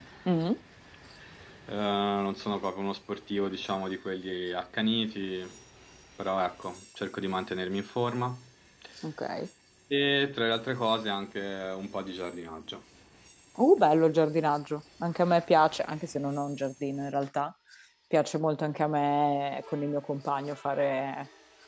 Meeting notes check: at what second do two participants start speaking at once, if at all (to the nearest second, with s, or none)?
none